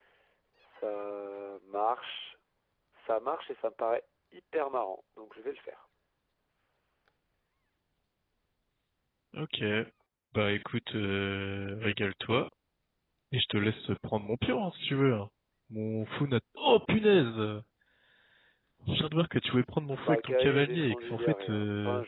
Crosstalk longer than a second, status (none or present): present